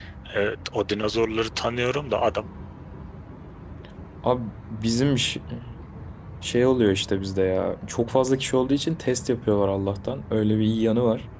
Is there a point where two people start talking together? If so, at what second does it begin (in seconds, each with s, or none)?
none